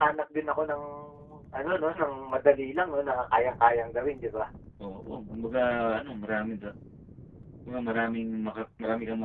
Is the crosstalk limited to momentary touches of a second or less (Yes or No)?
Yes